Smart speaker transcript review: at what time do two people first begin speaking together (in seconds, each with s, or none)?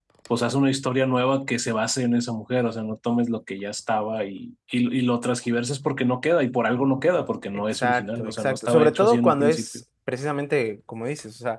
7.7 s